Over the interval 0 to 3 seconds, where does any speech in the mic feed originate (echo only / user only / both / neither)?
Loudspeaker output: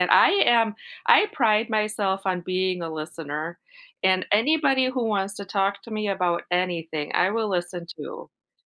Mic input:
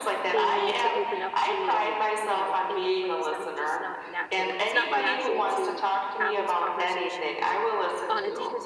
both